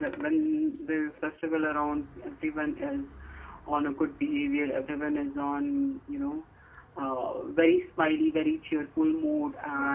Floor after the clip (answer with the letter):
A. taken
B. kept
B